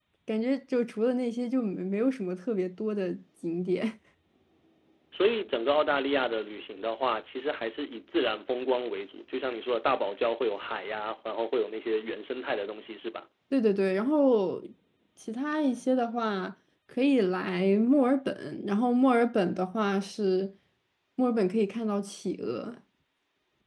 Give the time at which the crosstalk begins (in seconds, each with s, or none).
none